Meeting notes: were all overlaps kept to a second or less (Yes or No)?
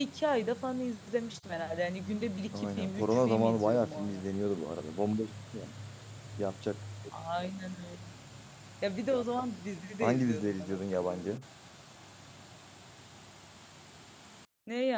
No